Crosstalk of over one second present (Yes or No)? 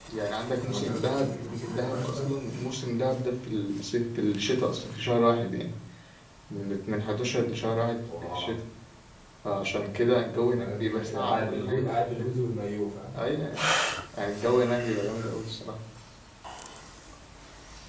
Yes